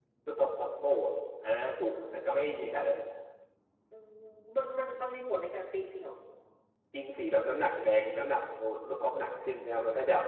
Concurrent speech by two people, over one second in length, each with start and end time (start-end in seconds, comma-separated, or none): none